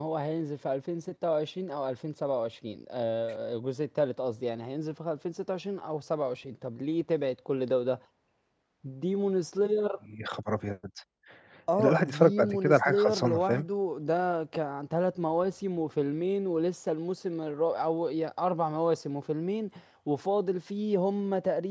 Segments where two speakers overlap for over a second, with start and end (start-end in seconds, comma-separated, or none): 11.8-13.6